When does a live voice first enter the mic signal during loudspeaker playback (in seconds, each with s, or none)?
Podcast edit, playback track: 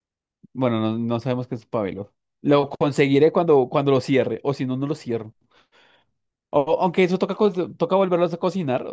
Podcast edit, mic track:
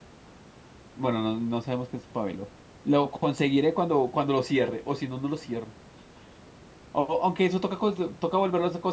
none